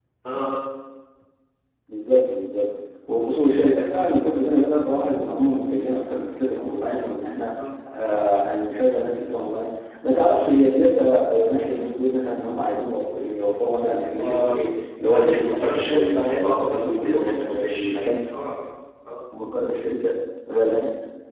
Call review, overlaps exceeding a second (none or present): present